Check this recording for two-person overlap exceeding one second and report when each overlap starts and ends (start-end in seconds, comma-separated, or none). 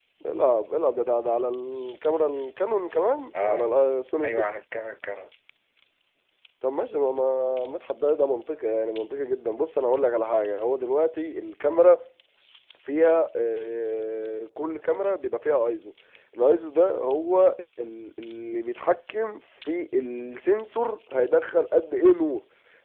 none